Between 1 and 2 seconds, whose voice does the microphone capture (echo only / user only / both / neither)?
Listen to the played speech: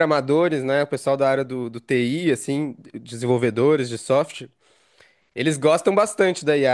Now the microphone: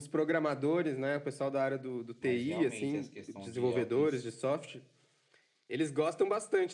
echo only